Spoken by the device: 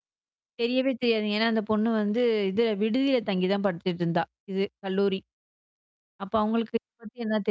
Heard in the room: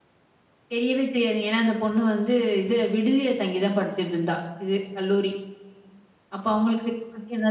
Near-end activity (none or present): none